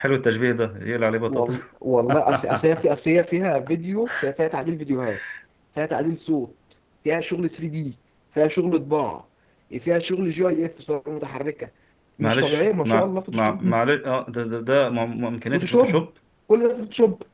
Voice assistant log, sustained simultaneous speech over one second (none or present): present